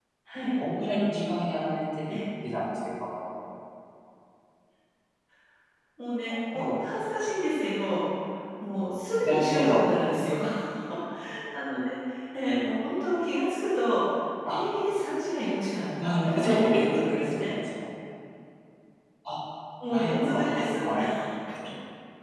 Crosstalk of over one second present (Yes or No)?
Yes